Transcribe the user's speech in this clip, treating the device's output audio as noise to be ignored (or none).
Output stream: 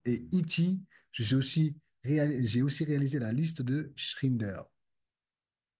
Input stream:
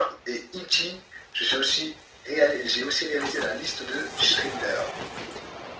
none